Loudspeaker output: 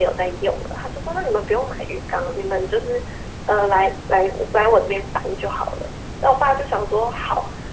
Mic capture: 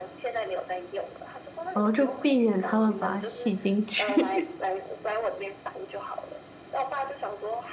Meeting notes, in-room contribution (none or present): present